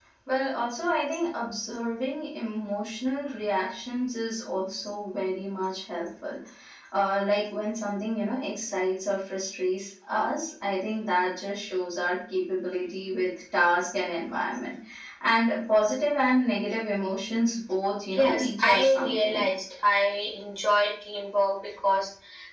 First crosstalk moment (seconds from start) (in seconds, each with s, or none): 18.1 s